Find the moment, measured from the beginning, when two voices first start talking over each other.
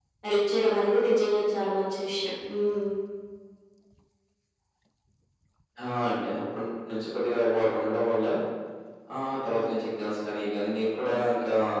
none

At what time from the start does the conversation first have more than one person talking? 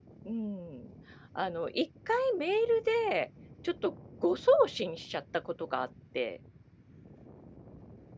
none

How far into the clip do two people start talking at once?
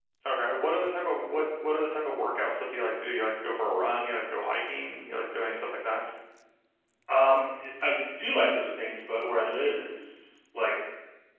none

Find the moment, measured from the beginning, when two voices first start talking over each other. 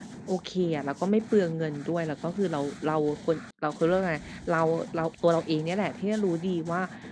none

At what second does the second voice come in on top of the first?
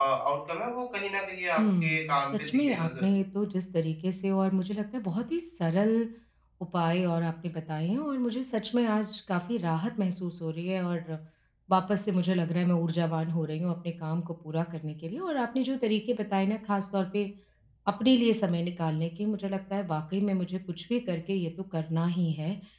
2 s

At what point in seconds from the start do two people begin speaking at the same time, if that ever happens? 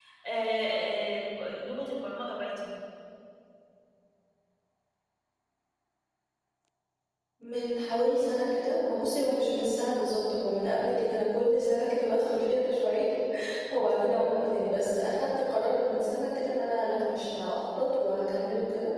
none

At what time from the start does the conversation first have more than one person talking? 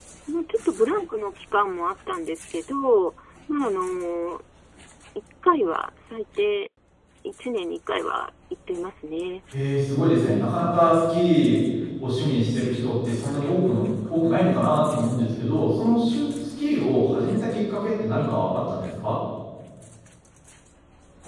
none

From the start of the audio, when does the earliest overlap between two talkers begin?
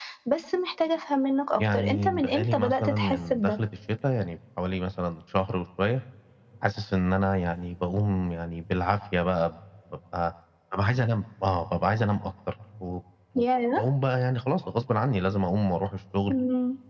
2 s

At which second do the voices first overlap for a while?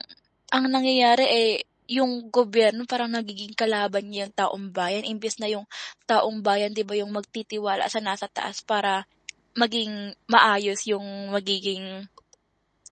none

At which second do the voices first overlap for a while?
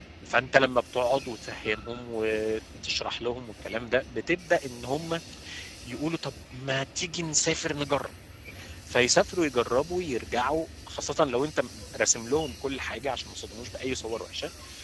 none

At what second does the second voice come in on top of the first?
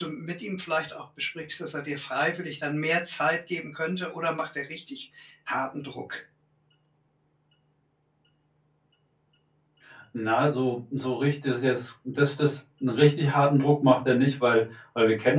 none

